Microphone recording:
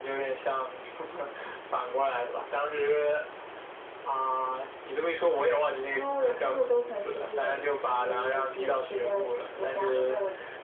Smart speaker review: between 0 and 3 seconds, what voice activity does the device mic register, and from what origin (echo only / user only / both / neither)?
echo only